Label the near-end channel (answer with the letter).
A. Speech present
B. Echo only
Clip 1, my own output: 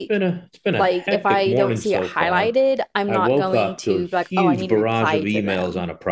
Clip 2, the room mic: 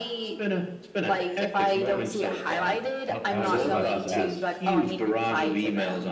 A